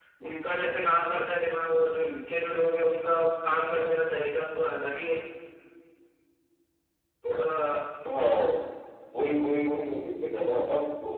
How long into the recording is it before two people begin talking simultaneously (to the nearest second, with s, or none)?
none